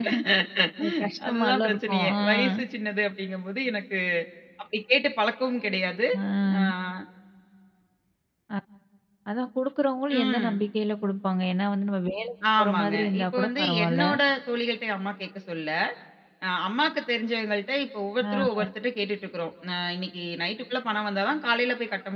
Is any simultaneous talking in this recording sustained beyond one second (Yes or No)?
Yes